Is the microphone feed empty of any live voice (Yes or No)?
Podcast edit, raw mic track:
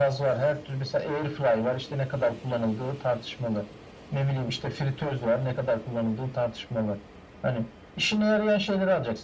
Yes